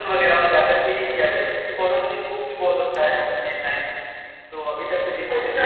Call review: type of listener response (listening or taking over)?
taking over